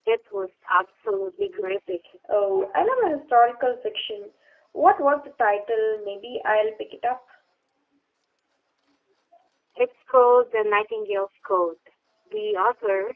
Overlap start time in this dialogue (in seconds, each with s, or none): none